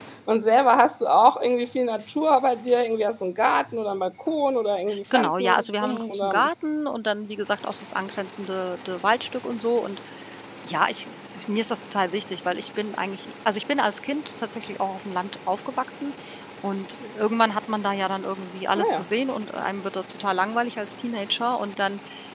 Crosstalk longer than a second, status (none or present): present